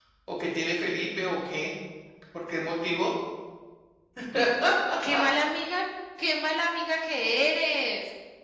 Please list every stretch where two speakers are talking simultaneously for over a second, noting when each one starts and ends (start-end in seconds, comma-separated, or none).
none